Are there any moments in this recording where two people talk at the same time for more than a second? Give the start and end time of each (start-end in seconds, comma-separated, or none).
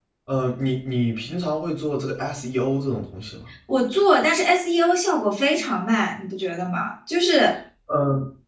none